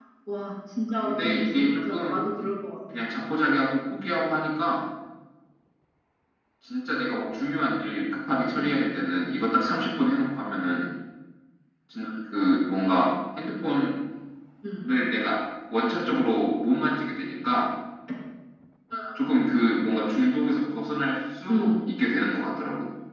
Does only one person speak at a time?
No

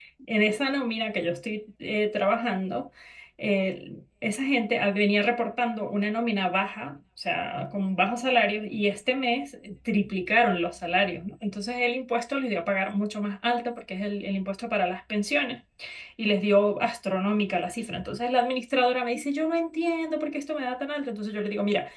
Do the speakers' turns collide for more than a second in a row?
No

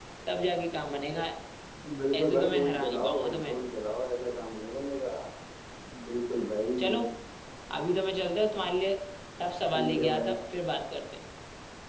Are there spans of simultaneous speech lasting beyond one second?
Yes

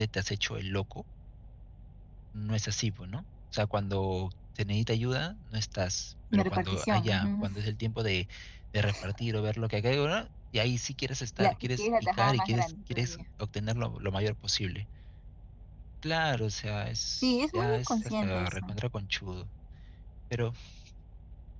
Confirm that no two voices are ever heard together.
No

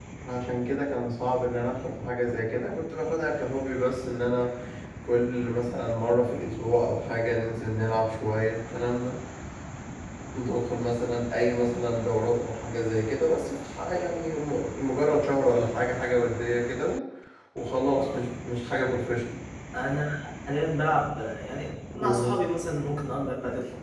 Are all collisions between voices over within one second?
Yes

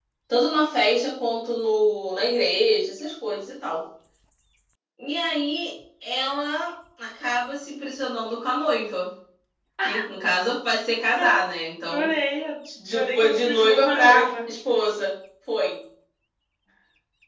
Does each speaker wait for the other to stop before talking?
No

